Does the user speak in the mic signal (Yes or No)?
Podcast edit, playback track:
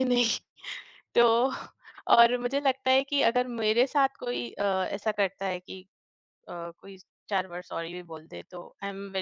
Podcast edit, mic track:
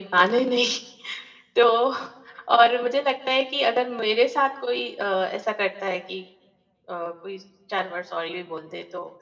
No